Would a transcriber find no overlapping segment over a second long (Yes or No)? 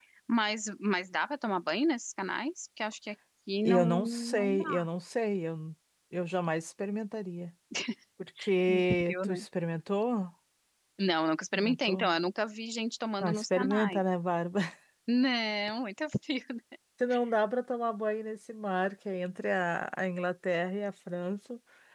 No